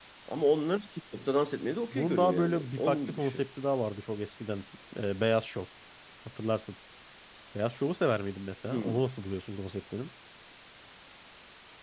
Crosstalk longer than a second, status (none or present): present